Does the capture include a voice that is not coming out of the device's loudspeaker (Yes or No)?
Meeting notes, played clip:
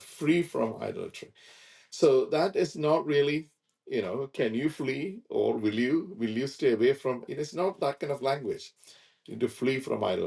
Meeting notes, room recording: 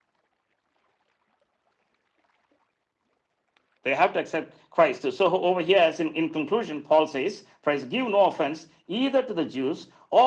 Yes